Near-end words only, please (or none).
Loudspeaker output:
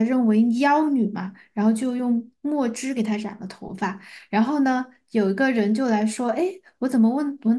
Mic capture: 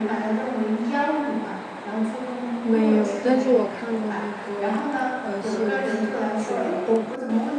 没有，但是我看过那个呃《西游记》水帘洞。